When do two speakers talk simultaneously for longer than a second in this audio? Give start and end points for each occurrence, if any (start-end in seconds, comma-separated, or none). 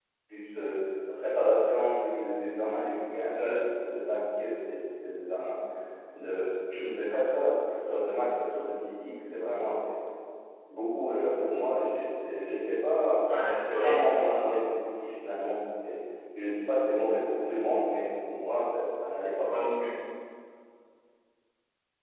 none